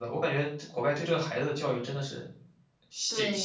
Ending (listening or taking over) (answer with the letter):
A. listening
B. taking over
B